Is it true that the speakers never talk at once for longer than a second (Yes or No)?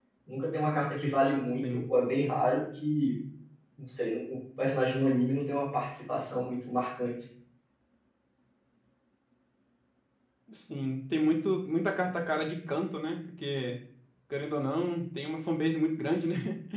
Yes